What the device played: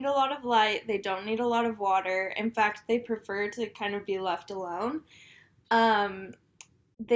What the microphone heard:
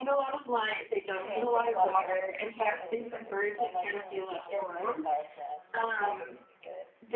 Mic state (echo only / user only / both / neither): both